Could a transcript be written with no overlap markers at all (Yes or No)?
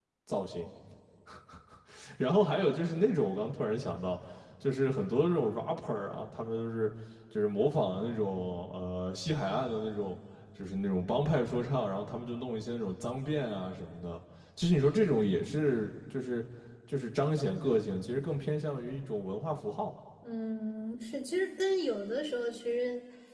Yes